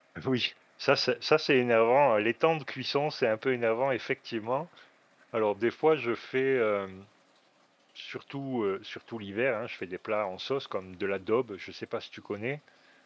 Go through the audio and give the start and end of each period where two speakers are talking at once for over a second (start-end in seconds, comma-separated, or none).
none